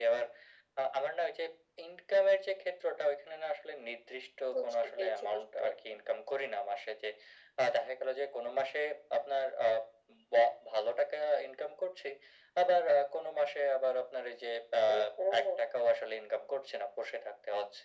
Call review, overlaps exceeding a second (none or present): present